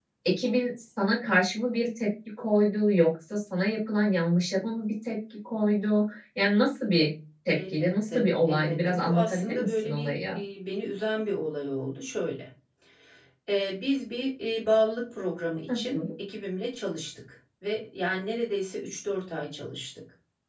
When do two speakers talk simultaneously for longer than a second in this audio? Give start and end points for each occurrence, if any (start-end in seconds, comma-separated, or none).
7.6-10.4